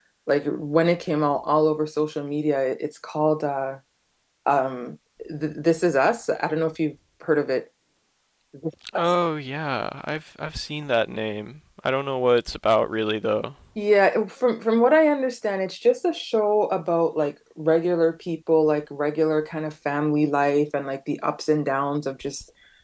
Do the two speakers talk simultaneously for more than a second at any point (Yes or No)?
No